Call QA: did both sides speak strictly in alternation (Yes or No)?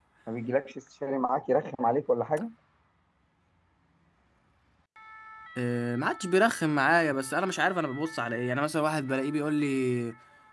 Yes